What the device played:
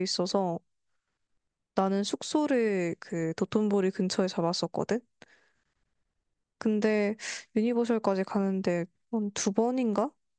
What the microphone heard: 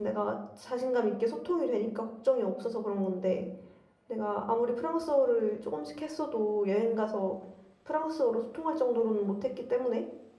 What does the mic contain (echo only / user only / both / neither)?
user only